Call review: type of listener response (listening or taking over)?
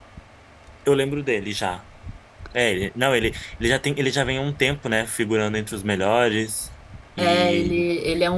taking over